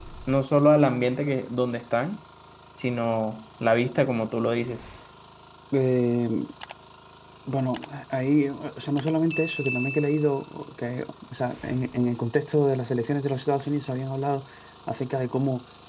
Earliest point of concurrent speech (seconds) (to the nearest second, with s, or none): none